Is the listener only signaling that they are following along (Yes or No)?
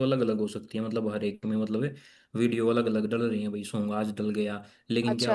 Yes